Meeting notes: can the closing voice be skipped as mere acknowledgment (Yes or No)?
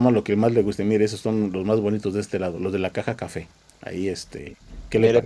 No